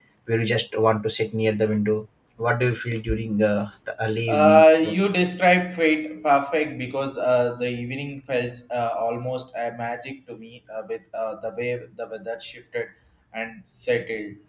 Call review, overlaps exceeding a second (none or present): none